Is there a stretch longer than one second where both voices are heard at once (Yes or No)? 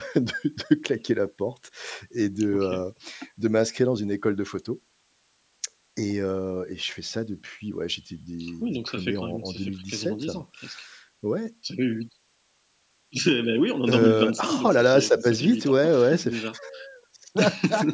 Yes